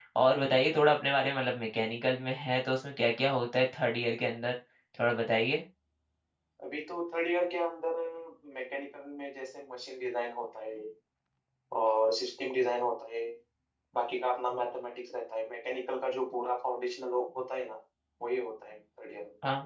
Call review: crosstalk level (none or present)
none